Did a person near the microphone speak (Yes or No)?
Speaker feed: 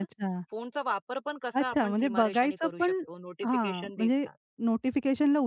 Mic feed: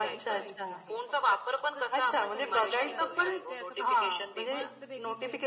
Yes